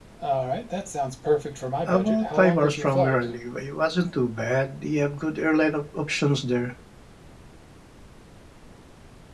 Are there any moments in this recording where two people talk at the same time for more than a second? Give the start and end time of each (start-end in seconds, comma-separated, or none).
1.9-3.3